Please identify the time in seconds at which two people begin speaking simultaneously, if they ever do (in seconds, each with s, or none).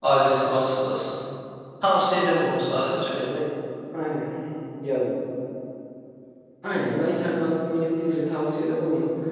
none